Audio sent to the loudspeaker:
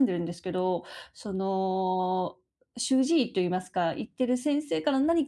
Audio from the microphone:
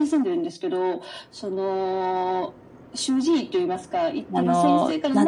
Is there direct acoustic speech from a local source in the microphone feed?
Yes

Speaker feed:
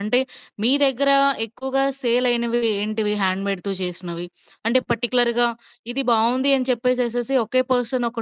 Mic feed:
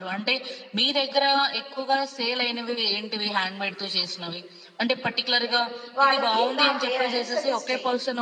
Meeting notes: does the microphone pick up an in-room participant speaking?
Yes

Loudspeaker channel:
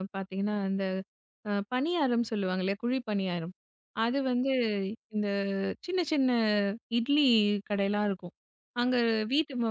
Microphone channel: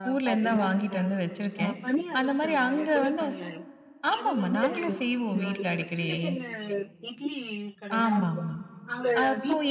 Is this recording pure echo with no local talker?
No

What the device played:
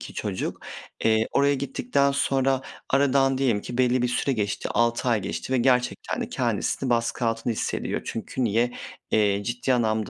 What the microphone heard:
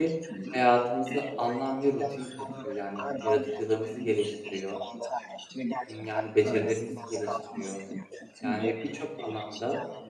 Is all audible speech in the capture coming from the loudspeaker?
No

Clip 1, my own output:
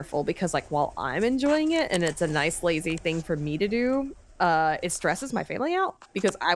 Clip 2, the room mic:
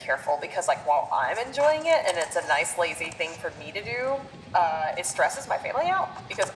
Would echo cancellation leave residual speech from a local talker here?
No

